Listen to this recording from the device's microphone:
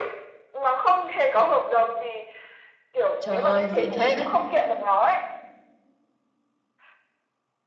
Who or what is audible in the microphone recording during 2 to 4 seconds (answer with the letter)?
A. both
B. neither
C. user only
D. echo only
A